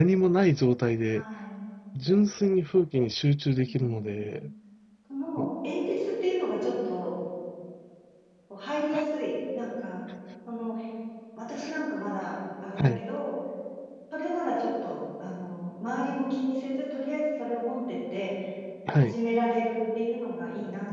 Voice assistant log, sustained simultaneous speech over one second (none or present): none